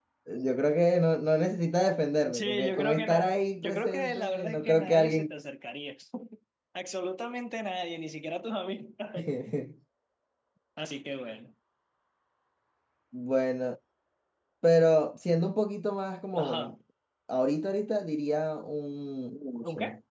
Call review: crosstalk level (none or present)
present